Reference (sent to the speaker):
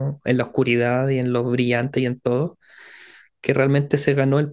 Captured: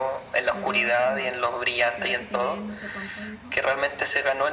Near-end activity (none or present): present